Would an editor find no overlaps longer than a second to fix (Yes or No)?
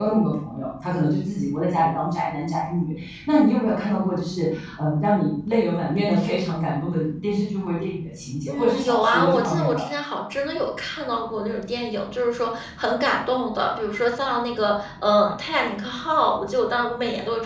No